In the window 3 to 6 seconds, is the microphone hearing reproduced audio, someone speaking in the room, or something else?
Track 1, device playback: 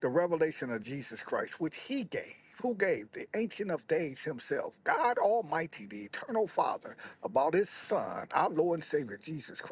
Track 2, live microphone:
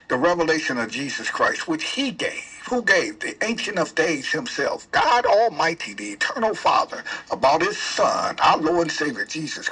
echo only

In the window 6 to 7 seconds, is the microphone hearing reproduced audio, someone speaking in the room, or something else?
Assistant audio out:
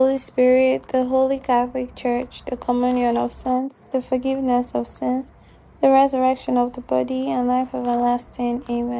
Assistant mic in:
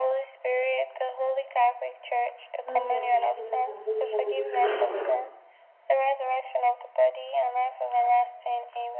echo only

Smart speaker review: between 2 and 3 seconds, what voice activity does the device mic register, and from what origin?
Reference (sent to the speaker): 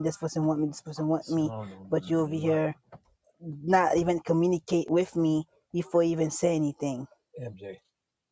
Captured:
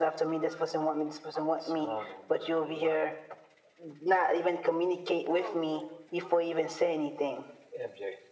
echo only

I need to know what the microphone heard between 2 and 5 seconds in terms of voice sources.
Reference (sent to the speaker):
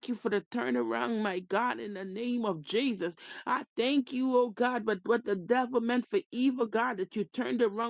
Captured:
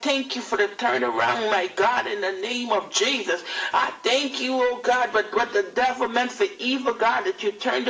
echo only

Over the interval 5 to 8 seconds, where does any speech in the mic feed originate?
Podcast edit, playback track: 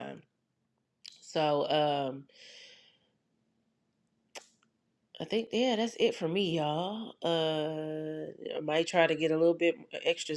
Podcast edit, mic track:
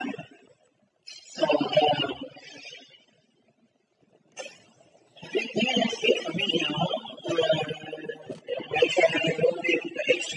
echo only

